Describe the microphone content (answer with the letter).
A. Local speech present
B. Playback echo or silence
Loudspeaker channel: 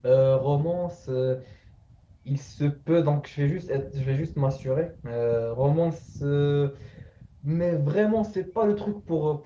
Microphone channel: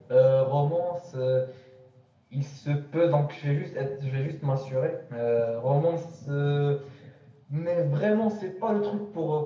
B